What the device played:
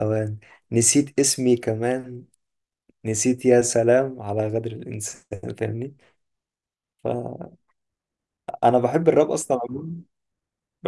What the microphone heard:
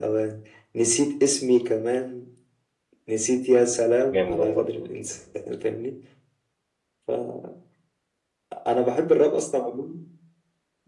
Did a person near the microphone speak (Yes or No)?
Yes